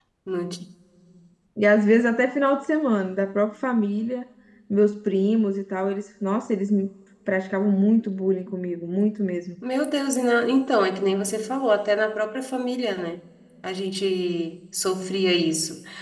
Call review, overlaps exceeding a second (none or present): none